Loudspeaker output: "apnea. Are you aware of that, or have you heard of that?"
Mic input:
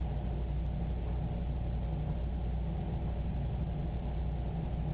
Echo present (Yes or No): No